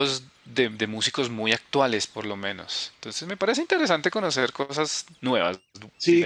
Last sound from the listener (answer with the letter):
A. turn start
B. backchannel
A